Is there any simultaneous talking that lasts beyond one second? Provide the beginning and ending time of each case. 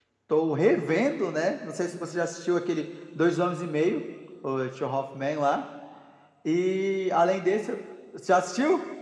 none

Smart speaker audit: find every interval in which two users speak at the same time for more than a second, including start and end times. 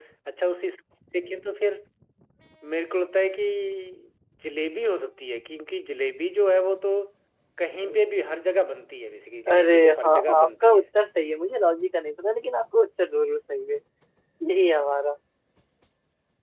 9.5-10.8

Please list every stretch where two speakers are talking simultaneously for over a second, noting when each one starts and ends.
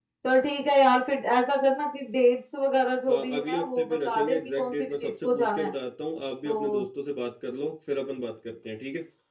3.1-5.7

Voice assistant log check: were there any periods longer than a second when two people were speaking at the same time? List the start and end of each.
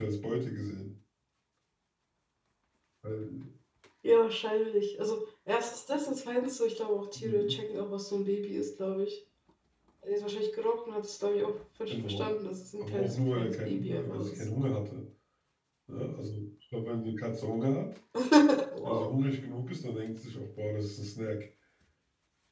12.8-14.4

